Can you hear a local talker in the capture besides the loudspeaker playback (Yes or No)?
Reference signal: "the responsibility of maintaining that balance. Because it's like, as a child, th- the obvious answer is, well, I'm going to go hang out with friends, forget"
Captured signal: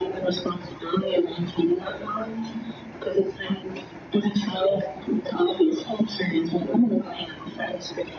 No